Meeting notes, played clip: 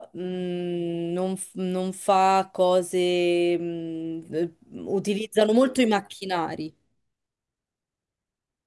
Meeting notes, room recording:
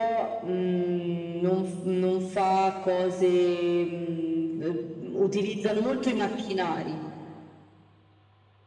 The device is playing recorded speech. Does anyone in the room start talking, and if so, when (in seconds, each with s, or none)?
none